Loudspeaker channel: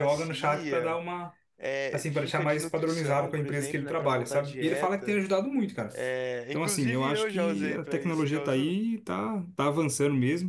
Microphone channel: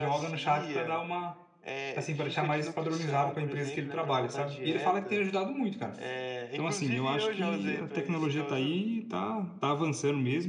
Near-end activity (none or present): none